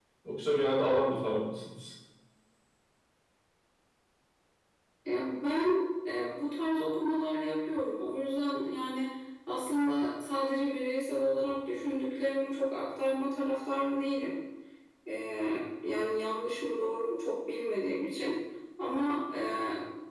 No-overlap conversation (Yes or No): Yes